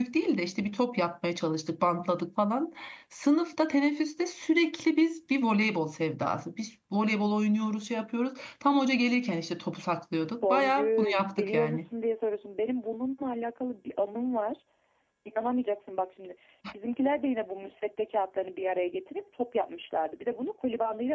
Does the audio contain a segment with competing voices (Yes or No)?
Yes